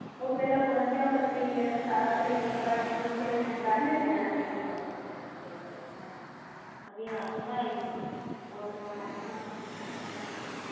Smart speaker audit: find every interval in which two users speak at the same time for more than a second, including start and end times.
3.1-4.5

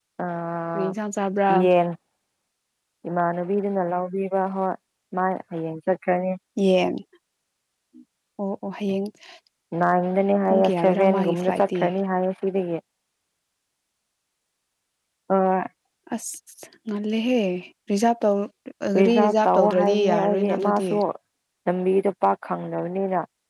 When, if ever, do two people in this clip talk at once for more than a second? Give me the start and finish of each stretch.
10.5-11.8, 19.0-20.9

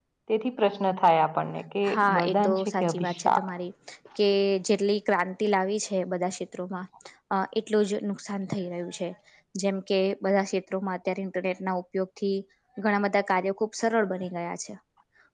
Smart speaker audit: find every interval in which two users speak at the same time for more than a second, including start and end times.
1.9-3.4

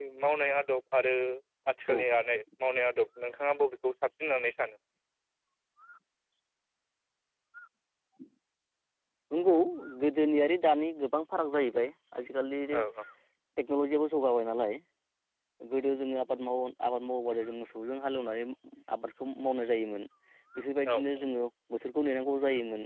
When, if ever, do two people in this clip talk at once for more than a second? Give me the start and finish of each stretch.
none

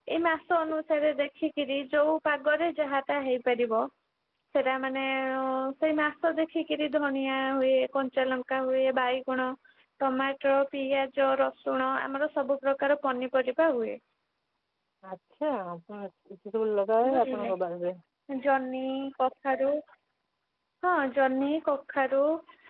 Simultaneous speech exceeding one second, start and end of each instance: none

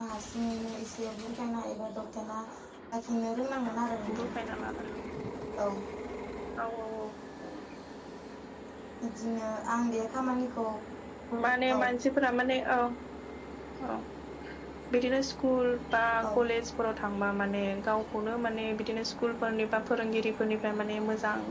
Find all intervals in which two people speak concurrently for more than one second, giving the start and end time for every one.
none

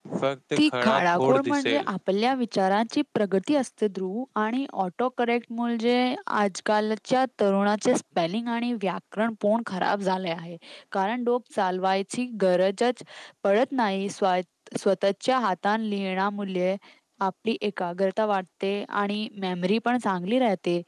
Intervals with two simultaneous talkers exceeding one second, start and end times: 0.6-1.9

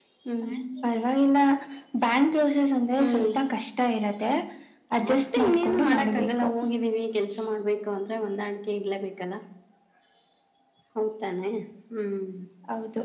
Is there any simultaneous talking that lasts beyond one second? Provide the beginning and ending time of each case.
5.1-6.5

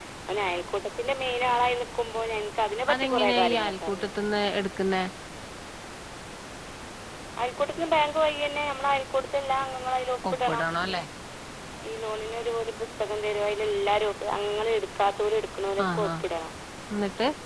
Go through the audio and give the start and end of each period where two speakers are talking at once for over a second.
2.9-4.1

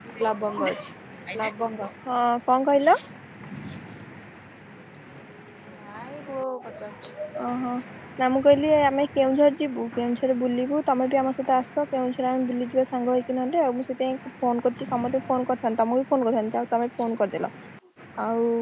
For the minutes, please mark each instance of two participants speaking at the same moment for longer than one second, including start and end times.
none

